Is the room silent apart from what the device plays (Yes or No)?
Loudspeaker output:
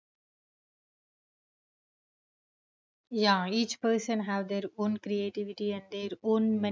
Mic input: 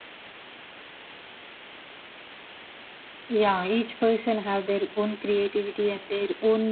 Yes